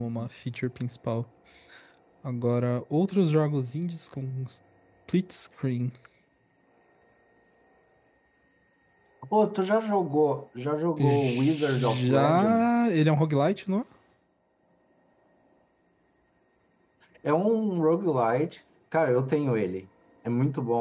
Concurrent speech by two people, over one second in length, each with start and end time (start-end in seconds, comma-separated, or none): 11.0-12.7